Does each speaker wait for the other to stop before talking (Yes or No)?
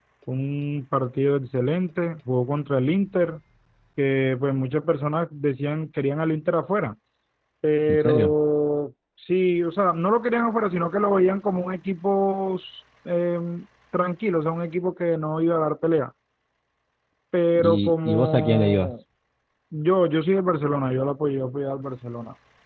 No